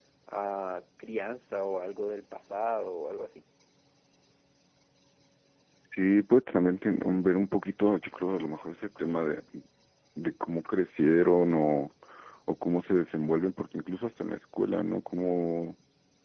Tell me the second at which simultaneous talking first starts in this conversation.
none

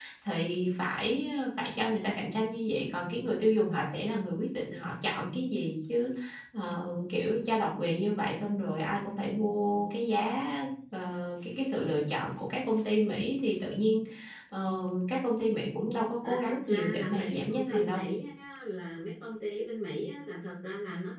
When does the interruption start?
16.2 s

